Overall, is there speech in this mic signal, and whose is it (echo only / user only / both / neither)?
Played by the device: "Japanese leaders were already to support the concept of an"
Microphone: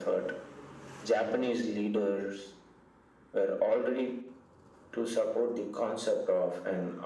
echo only